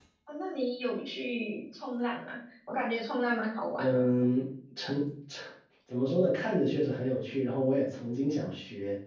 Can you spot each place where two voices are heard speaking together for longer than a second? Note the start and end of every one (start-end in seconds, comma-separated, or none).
none